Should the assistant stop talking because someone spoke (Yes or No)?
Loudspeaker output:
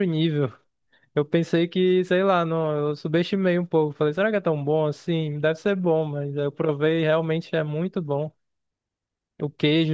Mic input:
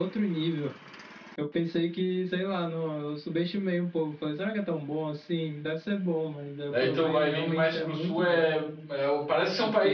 Yes